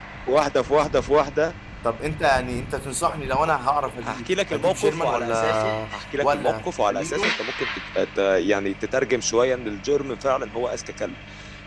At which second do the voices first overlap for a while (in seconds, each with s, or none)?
4.0 s